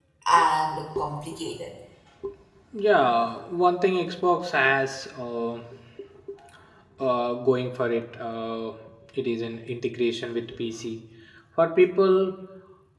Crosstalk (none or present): none